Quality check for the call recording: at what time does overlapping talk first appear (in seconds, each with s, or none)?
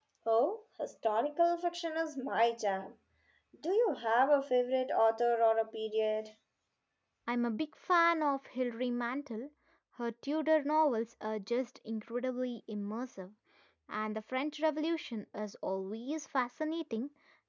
none